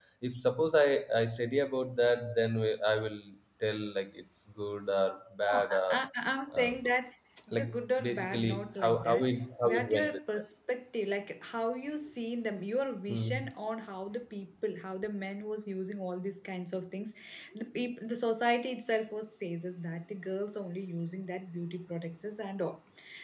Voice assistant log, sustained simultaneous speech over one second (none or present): present